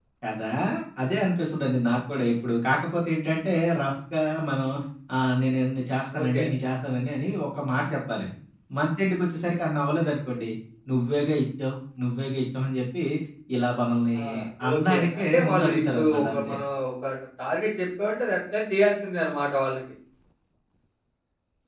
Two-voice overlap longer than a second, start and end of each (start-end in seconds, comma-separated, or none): 14.7-16.6